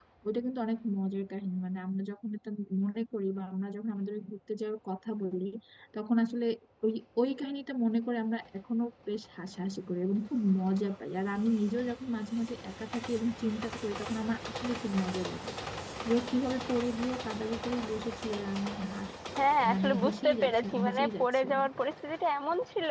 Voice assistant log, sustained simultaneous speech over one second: present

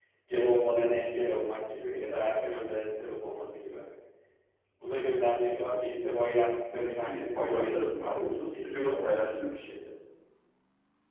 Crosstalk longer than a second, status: present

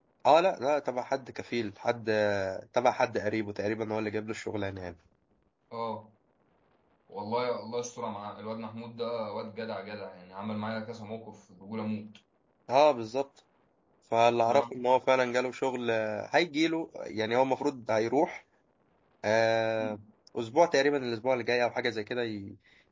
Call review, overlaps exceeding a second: none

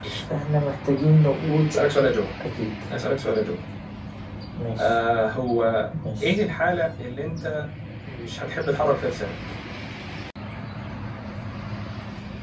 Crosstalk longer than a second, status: none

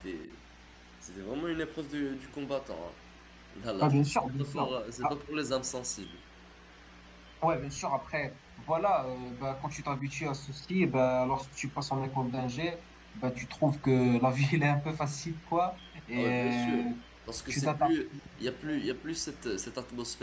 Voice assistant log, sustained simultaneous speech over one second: present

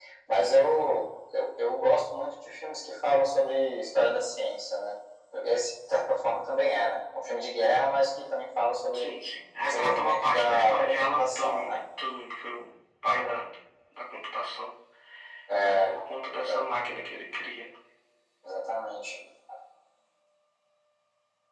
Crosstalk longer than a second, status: present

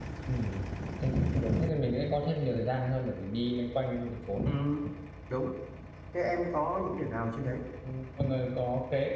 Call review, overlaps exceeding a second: none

